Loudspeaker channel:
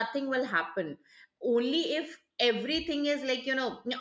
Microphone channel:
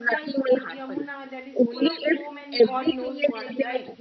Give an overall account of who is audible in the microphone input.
both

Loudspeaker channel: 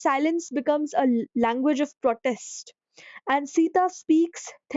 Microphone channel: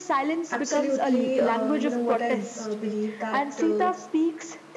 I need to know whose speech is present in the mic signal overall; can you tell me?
both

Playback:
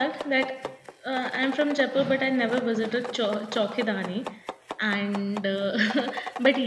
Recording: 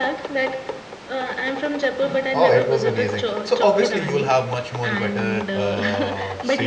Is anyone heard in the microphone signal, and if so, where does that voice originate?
both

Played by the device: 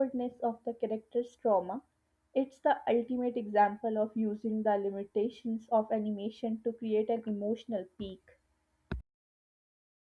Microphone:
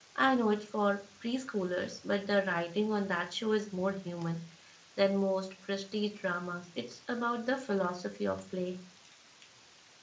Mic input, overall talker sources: user only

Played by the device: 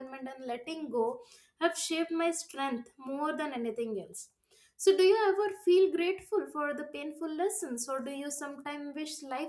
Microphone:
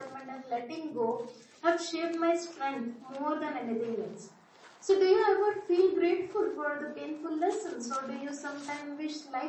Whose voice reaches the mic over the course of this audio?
echo only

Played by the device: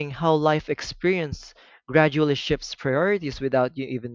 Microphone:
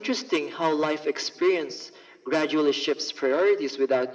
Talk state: echo only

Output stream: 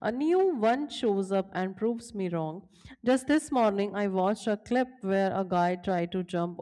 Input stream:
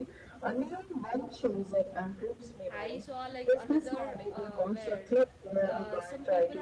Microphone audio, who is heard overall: both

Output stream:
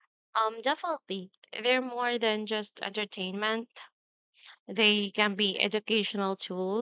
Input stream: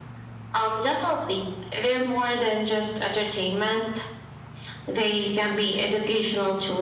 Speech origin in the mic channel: echo only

